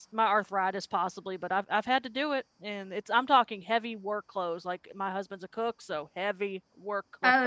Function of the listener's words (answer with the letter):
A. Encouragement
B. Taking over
B